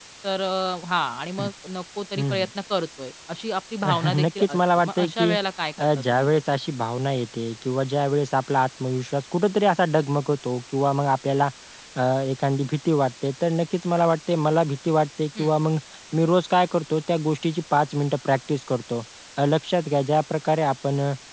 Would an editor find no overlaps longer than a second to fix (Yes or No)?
No